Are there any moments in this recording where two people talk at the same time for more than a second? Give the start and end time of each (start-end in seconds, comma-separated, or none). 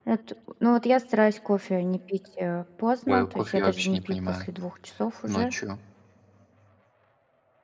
3.1-4.5